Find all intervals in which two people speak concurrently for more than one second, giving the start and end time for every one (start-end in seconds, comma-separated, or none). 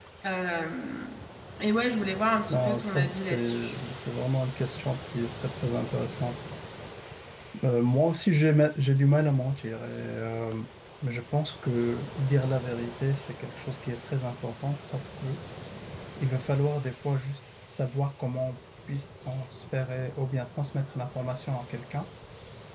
2.5-3.8